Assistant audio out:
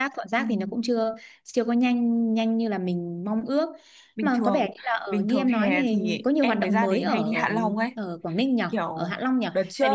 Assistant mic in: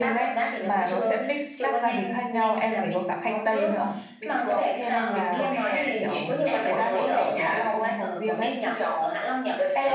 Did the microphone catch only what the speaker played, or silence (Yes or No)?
No